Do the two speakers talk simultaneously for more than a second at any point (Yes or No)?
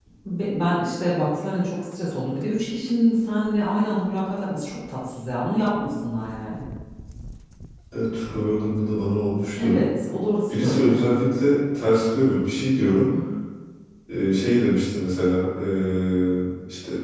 No